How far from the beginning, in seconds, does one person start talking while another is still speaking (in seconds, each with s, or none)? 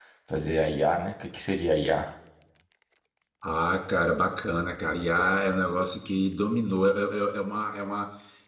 none